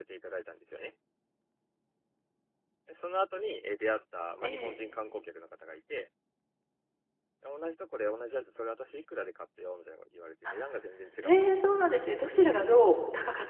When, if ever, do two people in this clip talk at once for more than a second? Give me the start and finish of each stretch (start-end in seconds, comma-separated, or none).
11.2-12.6